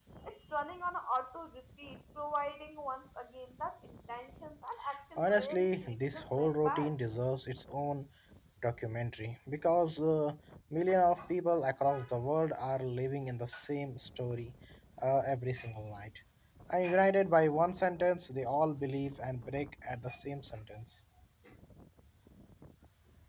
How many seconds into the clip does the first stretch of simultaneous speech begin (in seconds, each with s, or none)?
5.2 s